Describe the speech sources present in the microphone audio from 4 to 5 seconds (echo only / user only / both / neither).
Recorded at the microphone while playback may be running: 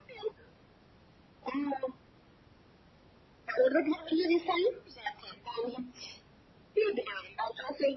echo only